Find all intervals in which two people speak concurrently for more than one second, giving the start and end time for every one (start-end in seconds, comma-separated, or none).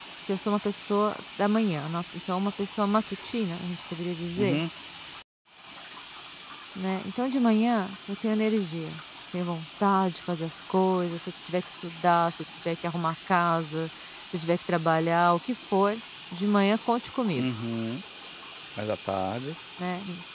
none